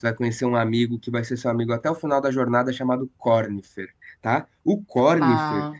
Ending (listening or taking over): listening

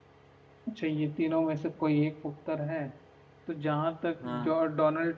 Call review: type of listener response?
listening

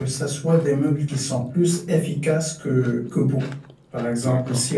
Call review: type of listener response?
listening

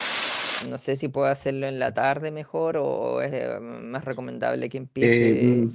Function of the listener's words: taking over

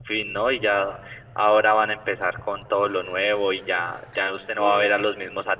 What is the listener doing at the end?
listening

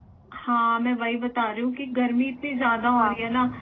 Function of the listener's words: listening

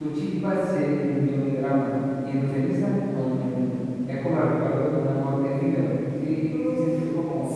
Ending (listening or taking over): taking over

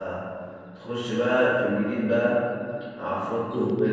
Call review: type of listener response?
listening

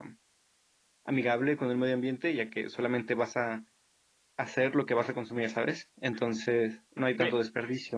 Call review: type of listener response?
taking over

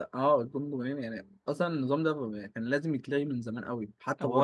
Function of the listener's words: taking over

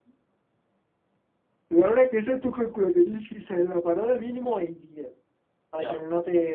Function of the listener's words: listening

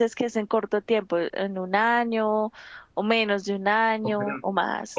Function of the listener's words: taking over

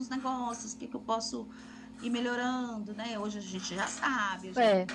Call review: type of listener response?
listening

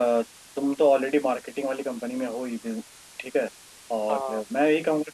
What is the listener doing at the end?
listening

